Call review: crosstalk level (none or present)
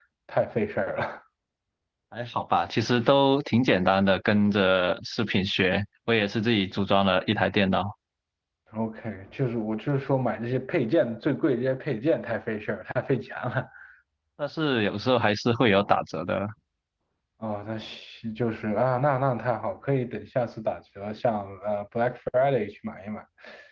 none